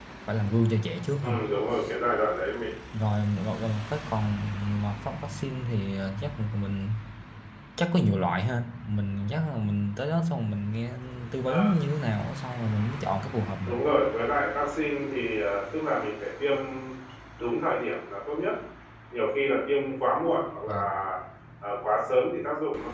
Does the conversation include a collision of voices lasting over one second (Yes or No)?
No